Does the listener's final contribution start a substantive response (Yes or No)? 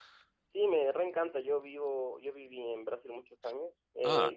No